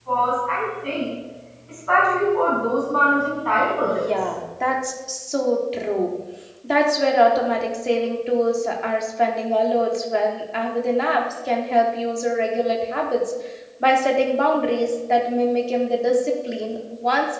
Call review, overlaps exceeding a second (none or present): none